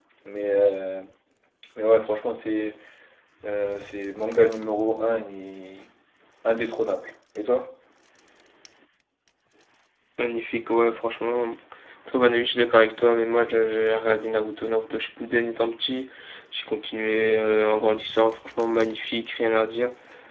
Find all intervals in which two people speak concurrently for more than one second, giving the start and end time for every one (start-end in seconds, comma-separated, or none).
none